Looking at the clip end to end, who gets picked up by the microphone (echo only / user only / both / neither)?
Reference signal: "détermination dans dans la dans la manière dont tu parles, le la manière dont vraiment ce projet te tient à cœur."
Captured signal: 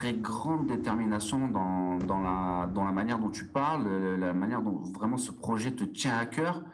echo only